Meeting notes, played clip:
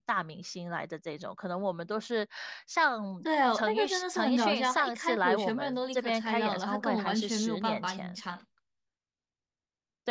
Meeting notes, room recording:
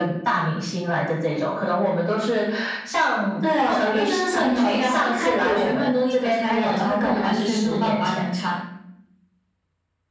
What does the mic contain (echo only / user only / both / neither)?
echo only